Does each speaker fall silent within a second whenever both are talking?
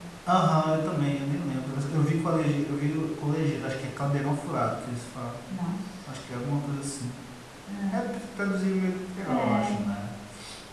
Yes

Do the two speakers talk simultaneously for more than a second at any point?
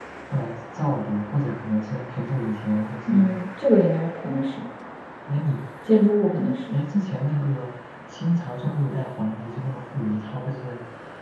No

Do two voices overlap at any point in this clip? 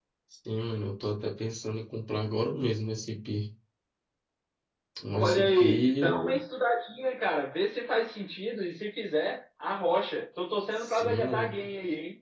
Yes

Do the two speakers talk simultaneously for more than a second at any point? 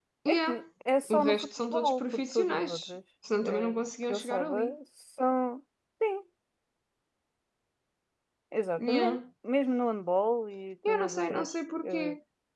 Yes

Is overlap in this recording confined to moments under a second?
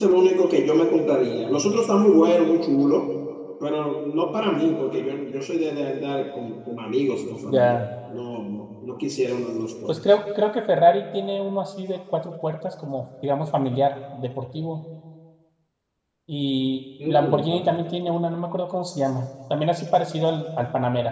Yes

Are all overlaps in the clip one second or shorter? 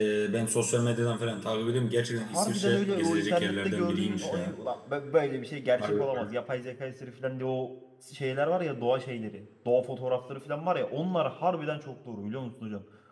No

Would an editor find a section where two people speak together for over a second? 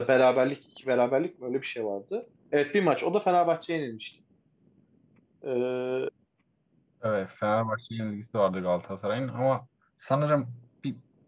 No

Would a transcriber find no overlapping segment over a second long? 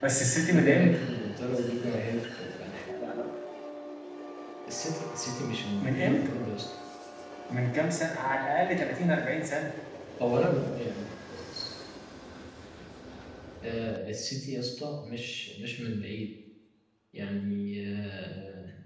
Yes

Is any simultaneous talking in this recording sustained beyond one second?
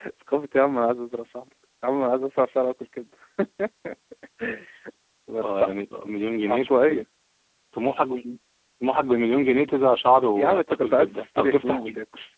Yes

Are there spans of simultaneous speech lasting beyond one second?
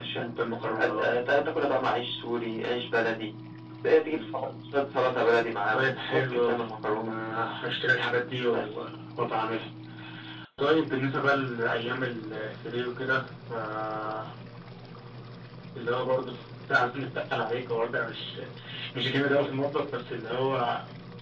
Yes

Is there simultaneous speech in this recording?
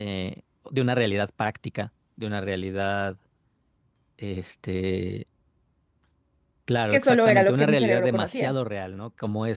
Yes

